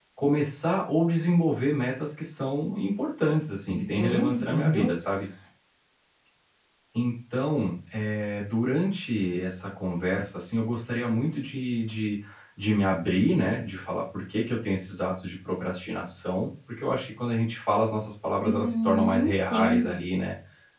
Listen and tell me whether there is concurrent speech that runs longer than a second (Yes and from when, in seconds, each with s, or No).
Yes, from 3.7 s